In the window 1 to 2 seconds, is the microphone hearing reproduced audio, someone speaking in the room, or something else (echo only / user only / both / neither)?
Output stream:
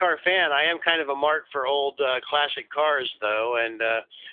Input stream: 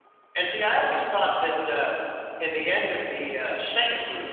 user only